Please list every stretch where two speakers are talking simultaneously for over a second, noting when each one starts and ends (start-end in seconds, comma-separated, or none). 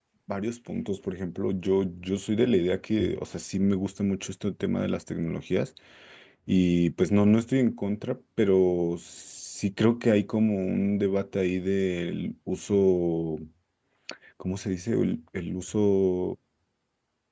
none